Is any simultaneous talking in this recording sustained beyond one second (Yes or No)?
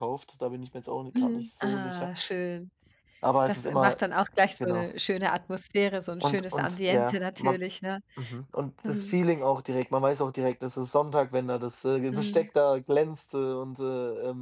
Yes